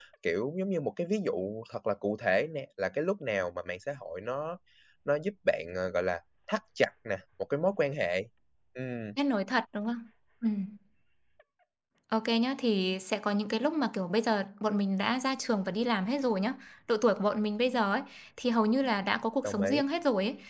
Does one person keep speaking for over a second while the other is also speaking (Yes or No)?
No